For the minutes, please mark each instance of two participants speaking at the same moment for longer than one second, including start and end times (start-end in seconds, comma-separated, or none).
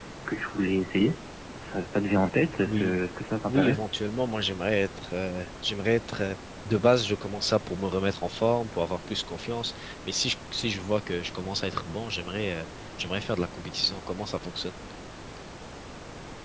none